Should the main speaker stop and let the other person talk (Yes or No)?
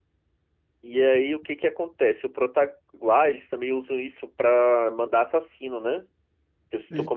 No